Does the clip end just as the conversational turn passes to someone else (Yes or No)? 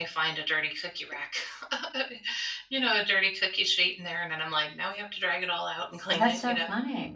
Yes